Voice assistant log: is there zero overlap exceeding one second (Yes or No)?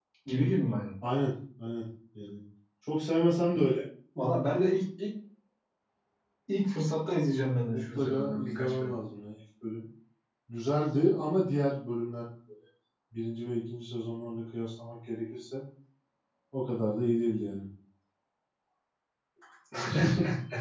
No